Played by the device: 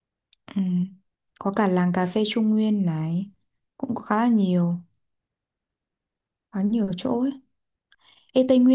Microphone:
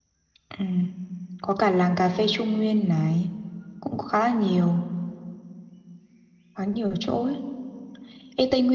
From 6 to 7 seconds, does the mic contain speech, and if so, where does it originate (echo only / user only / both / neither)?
echo only